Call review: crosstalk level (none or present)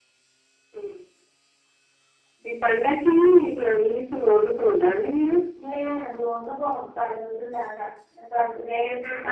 none